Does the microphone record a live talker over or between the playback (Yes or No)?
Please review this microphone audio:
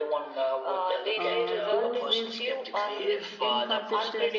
Yes